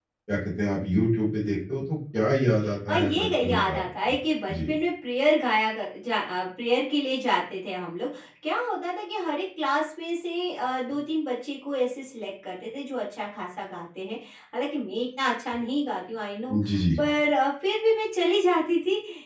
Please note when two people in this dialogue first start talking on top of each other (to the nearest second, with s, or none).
3 s